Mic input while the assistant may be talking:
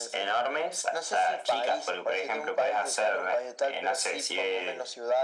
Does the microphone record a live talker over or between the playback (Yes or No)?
No